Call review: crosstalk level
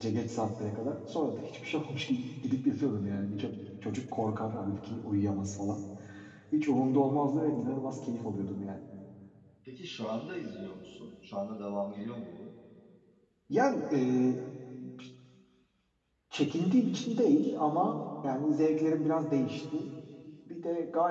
none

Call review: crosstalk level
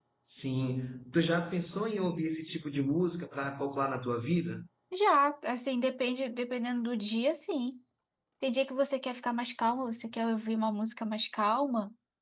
none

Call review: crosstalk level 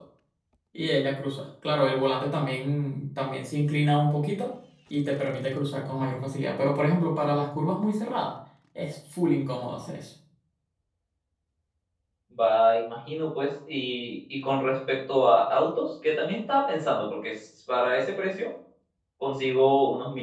none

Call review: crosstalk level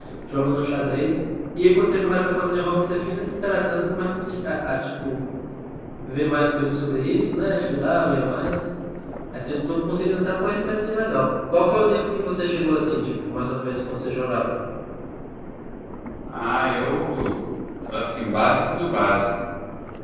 none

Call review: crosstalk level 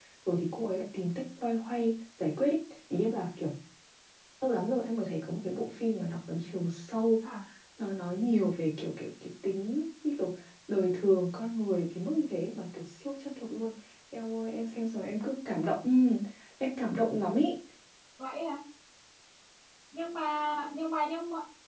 none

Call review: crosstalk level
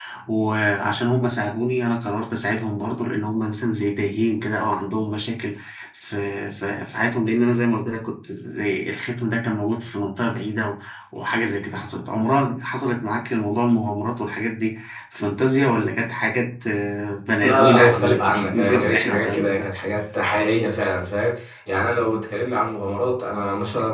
present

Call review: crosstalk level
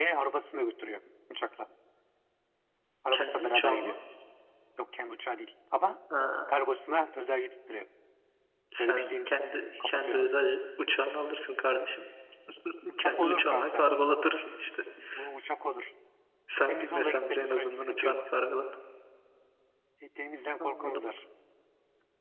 present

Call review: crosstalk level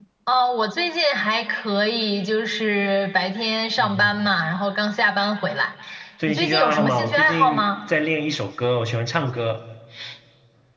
present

